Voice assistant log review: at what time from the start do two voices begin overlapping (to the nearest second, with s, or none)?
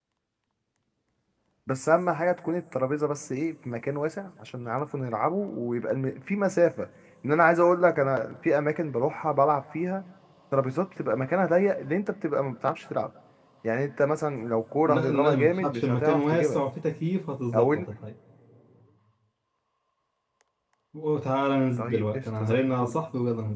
15 s